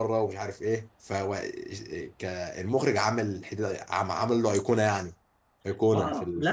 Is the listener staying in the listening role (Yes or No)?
No